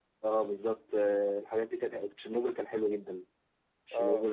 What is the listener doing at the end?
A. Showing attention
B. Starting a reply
A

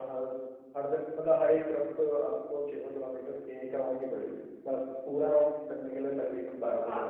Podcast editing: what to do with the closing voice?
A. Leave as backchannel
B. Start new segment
B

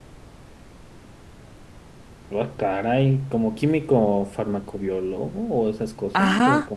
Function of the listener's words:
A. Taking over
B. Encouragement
A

